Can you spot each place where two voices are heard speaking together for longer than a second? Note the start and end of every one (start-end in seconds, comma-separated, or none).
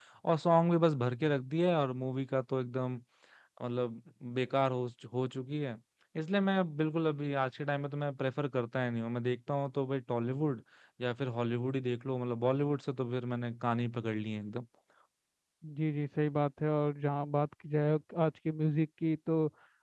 none